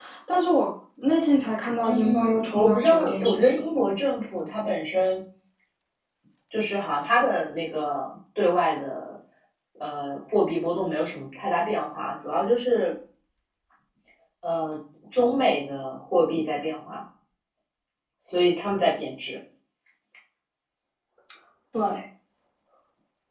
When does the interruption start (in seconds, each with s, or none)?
1.8 s